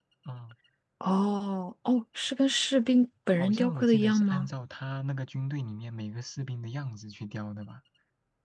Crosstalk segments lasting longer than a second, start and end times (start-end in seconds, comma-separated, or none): 3.3-4.5